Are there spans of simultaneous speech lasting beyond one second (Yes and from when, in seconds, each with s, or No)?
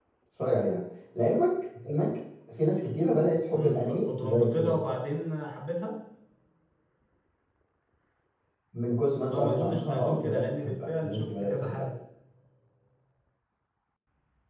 Yes, from 3.5 s